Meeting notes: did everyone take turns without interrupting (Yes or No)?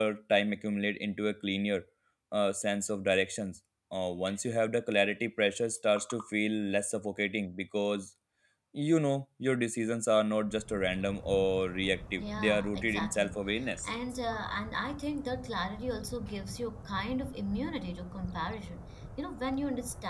No